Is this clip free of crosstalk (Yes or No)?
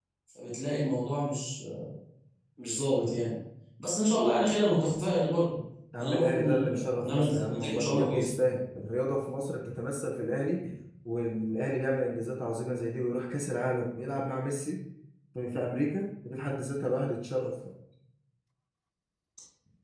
No